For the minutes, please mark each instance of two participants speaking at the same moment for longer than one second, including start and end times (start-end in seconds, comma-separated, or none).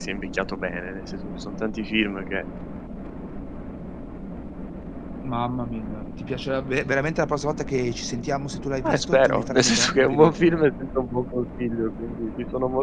8.9-10.7